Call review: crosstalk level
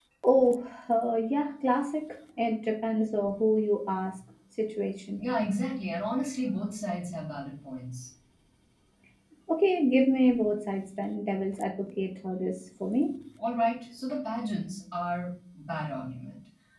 none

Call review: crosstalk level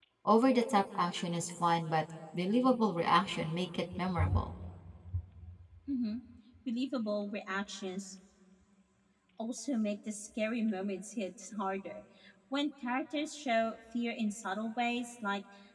none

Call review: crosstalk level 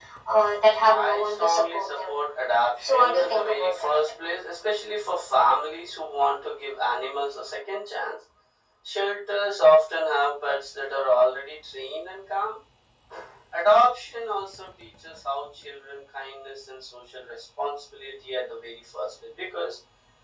present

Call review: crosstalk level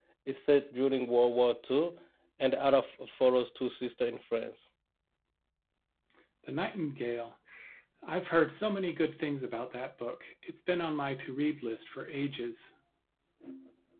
none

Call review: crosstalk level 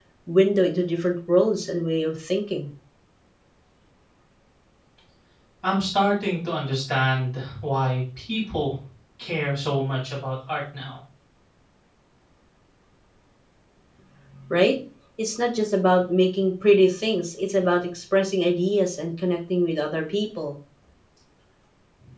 none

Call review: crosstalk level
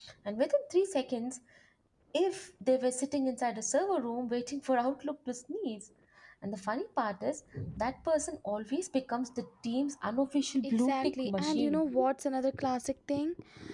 present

